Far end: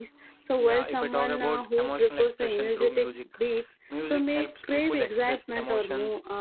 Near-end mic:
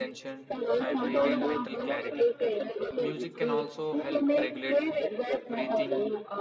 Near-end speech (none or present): present